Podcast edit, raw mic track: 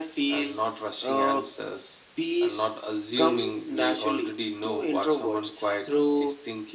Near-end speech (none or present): none